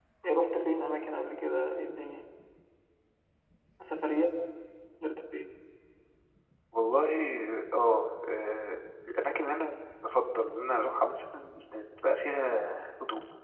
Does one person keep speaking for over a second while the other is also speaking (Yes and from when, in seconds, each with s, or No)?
No